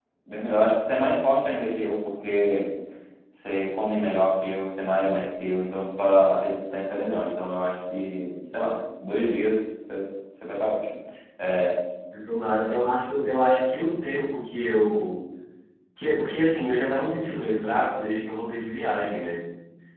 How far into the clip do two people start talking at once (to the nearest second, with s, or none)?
none